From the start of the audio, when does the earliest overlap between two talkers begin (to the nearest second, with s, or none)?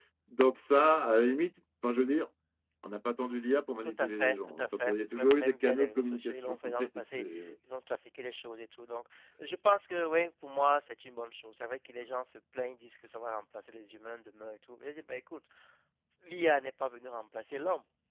4 s